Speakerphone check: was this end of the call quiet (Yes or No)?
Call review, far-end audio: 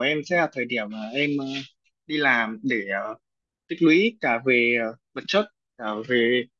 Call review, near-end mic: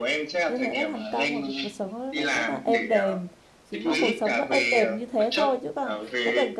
No